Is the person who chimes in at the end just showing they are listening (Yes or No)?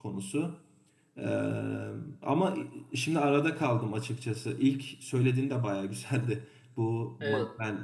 Yes